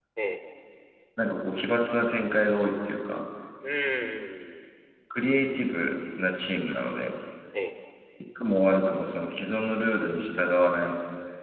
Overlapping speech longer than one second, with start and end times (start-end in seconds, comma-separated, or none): none